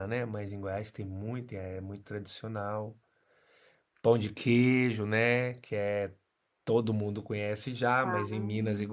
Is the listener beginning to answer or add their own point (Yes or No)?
No